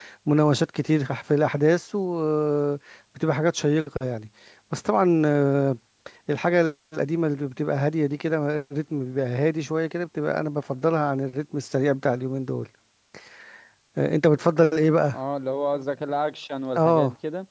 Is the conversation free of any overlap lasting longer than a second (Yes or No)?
Yes